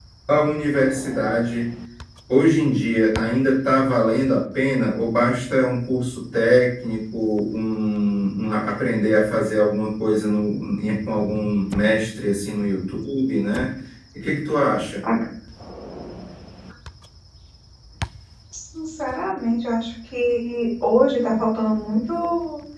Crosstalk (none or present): none